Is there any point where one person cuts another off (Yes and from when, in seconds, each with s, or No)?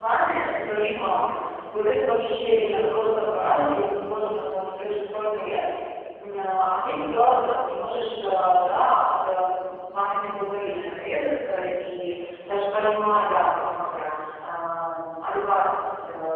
No